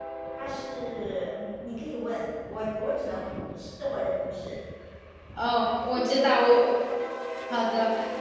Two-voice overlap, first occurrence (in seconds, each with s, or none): none